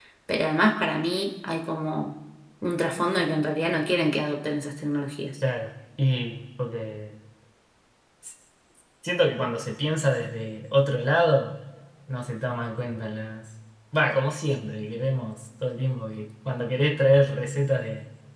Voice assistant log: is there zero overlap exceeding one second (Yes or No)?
Yes